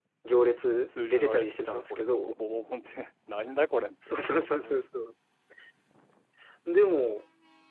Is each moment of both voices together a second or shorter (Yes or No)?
No